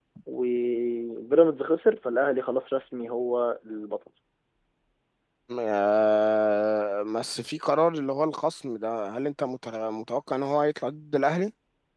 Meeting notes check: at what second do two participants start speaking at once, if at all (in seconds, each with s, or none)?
none